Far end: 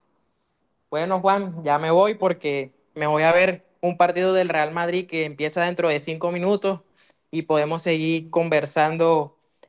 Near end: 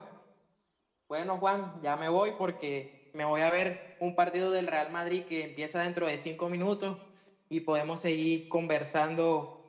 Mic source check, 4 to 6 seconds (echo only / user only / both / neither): echo only